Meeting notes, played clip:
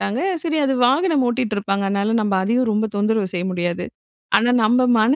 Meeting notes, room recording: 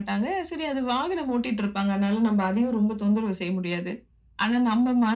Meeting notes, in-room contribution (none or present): none